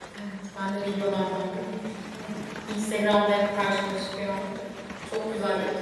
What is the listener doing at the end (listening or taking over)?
taking over